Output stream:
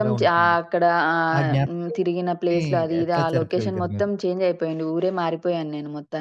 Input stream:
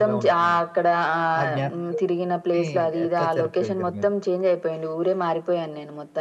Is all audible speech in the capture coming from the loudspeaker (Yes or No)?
Yes